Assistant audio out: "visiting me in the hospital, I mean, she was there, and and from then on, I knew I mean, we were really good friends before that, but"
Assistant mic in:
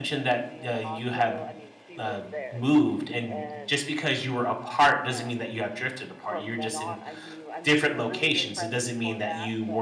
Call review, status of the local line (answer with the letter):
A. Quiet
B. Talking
B